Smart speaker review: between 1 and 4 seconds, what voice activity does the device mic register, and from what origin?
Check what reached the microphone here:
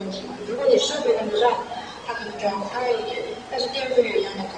echo only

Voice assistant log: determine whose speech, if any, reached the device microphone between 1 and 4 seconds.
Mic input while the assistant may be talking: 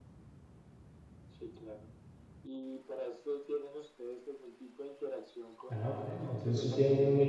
echo only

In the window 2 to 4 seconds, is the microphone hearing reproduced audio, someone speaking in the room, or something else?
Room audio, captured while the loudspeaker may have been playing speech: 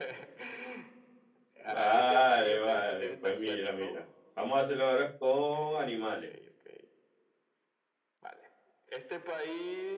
both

